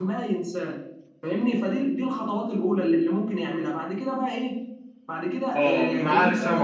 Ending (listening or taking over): taking over